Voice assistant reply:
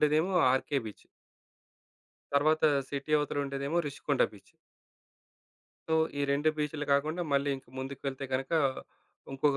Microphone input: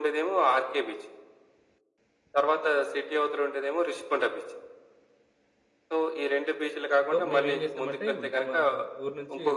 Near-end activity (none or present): present